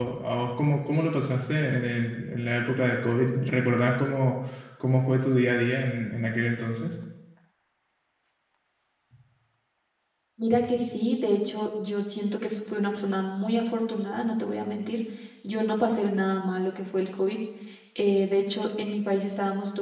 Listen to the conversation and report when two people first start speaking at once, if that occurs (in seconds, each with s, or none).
none